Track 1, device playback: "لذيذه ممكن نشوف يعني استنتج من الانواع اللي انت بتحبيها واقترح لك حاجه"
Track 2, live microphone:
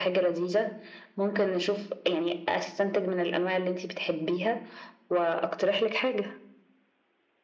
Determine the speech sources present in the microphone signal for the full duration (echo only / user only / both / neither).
echo only